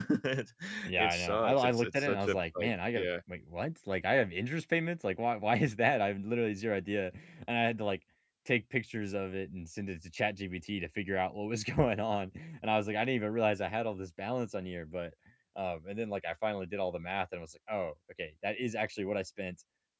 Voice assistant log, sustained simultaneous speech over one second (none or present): present